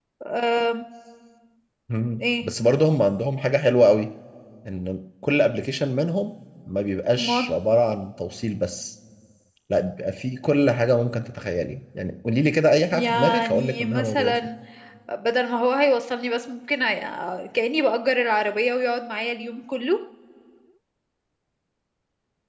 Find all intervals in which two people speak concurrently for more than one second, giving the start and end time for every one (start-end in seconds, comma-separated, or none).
12.9-14.5